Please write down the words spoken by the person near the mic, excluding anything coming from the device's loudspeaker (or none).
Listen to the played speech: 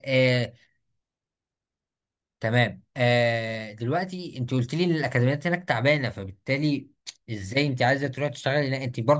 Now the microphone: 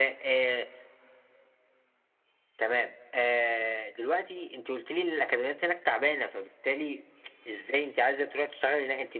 none